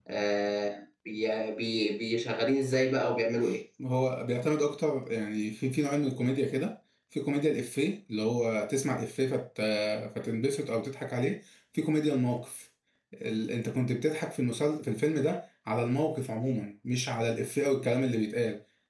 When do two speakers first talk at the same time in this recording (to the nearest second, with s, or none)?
none